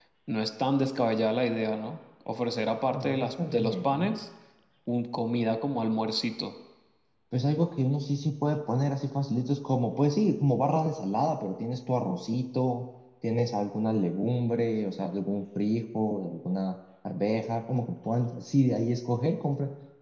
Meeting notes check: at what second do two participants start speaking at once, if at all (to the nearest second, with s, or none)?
3 s